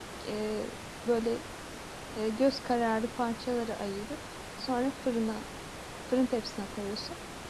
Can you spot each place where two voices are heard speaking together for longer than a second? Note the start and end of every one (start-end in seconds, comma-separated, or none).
none